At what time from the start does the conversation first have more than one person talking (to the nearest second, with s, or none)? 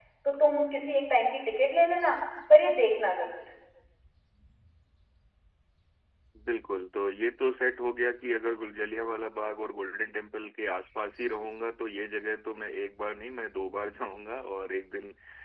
none